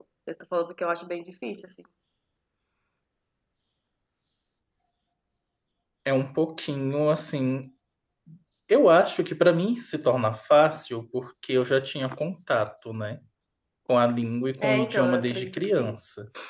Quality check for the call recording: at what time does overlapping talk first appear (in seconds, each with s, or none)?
14.6 s